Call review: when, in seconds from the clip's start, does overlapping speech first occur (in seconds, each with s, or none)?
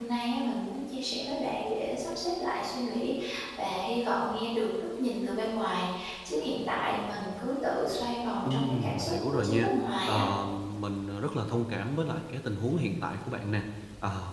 8.4 s